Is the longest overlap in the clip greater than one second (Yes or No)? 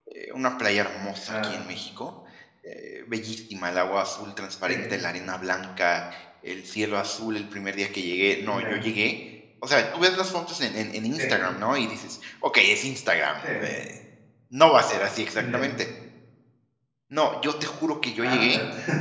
No